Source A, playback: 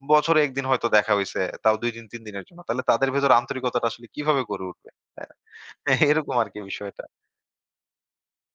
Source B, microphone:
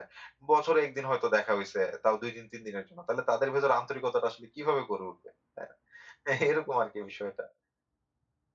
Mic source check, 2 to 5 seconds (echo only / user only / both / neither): echo only